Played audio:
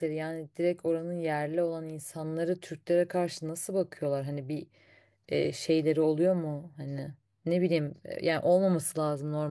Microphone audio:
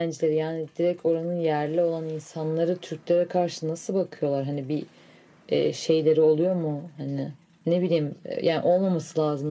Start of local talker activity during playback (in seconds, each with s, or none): none